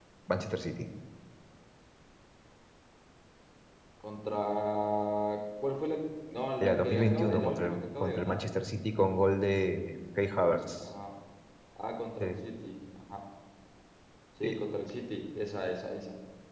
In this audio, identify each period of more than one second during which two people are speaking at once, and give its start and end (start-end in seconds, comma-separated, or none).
6.6-8.4